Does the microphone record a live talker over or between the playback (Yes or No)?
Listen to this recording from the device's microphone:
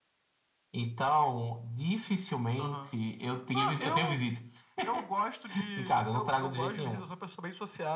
No